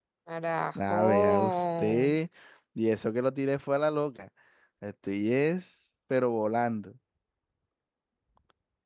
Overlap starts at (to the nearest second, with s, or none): 1 s